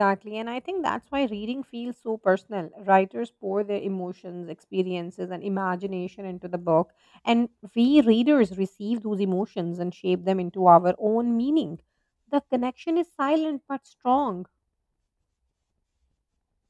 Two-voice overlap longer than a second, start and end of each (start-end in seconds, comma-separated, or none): none